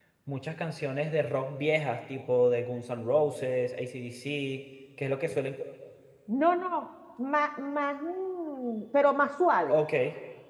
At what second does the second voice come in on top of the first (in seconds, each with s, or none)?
none